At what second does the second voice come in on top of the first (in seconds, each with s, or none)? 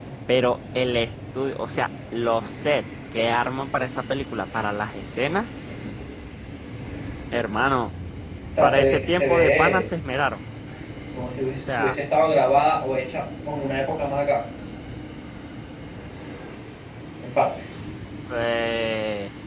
8.6 s